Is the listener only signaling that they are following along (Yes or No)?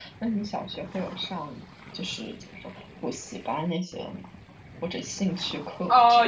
No